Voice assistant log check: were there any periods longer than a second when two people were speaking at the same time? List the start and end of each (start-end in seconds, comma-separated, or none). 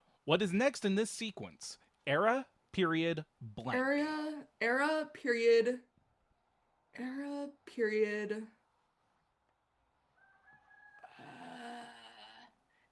none